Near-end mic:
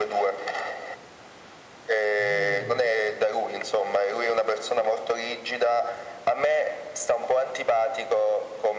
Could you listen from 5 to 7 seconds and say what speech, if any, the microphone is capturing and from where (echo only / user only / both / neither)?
echo only